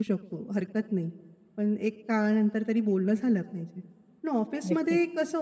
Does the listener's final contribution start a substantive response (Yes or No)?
No